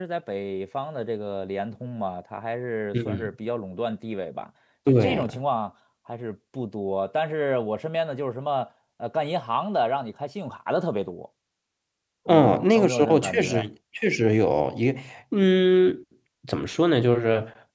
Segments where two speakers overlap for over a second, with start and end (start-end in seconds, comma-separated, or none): 12.3-13.7